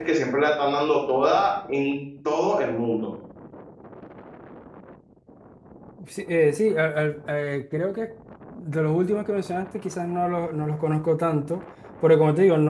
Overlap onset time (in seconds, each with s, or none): none